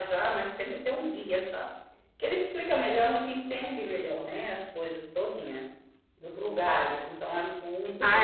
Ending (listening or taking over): taking over